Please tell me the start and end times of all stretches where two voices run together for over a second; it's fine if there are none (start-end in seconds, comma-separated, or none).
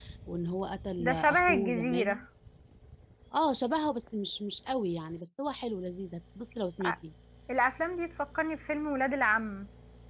1.0-2.2